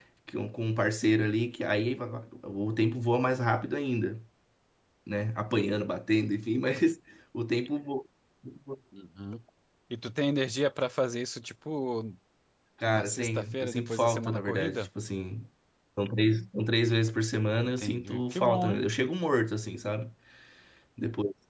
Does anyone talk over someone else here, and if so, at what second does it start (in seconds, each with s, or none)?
12.9 s